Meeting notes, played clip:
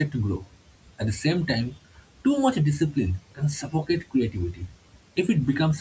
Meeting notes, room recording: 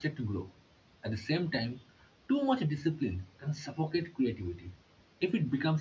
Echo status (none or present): present